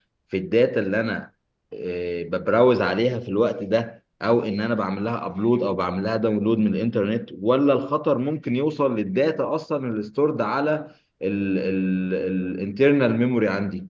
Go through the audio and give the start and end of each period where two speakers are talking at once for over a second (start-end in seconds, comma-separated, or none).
none